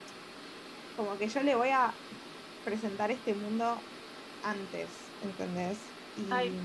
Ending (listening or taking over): taking over